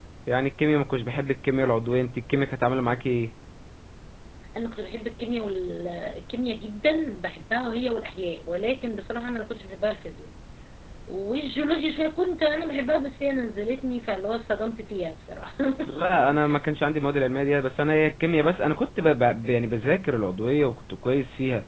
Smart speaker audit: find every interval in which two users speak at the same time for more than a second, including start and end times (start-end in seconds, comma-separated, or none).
none